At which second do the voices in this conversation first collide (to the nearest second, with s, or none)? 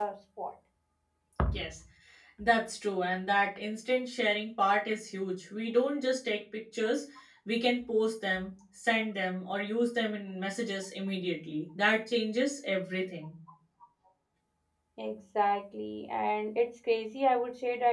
none